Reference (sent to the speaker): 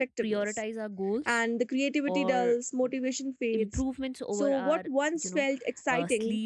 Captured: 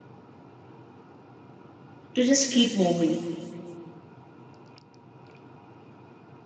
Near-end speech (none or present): present